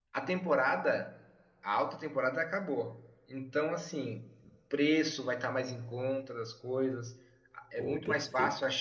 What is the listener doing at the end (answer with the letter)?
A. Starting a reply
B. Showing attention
B